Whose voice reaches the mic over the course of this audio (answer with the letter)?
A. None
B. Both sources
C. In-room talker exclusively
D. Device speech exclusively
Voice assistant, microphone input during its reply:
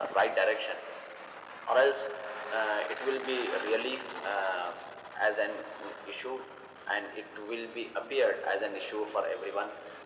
D